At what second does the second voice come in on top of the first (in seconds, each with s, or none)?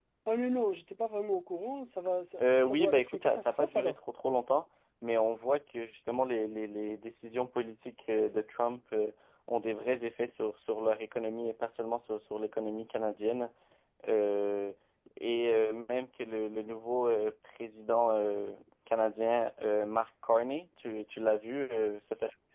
2.4 s